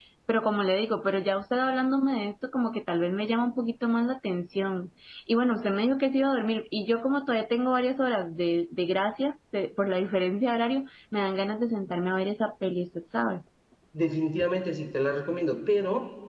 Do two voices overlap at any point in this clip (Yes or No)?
No